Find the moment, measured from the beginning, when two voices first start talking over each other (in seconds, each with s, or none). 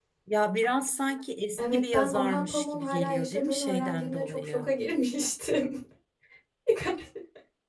1.6 s